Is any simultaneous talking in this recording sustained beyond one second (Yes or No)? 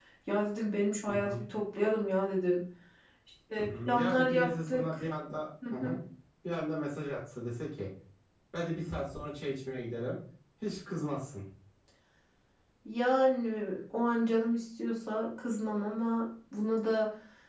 Yes